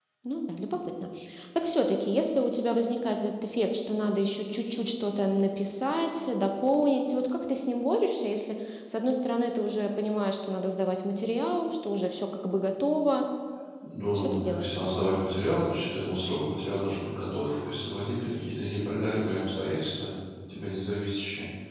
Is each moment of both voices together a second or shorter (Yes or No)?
No